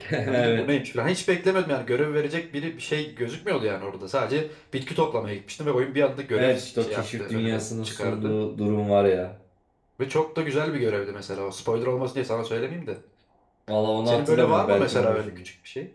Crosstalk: present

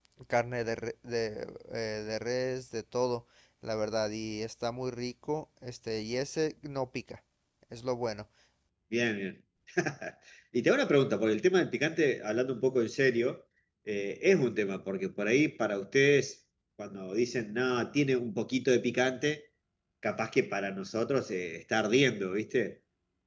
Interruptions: none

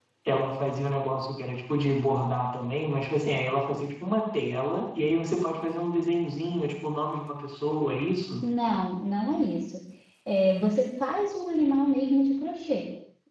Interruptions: none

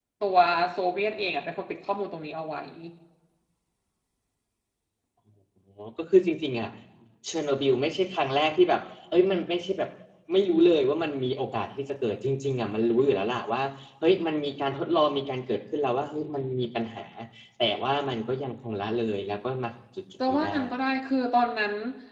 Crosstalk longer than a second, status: none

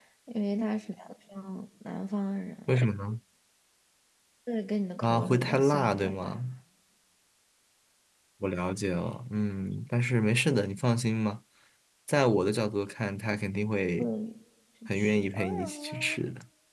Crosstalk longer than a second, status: present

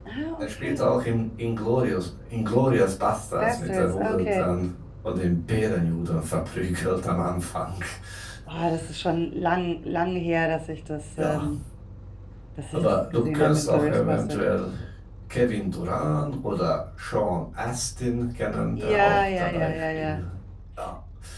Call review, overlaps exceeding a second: present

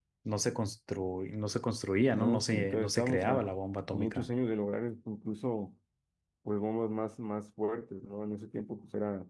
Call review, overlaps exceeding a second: present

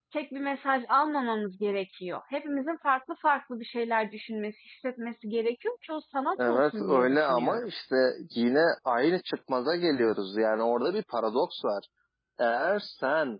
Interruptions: present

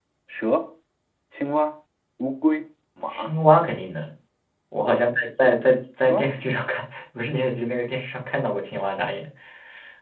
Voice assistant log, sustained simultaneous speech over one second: none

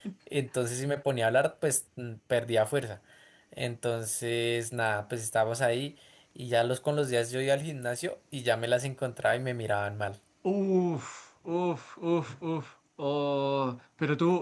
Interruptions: none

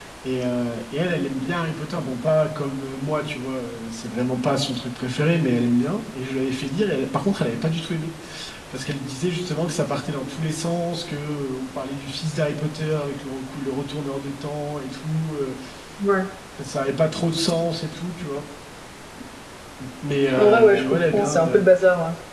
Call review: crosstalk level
present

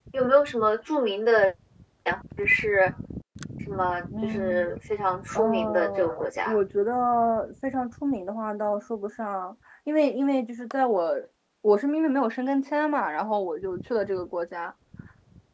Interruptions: present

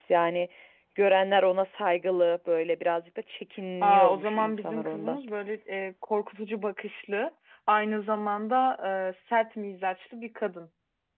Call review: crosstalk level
present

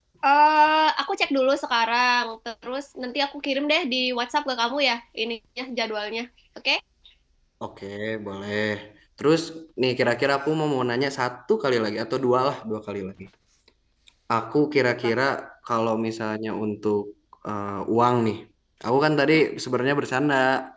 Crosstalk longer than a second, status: none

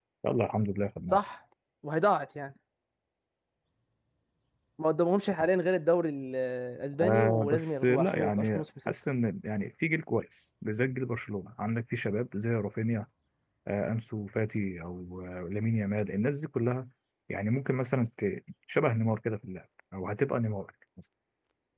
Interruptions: present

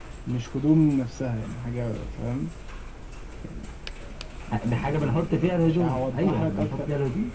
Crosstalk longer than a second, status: present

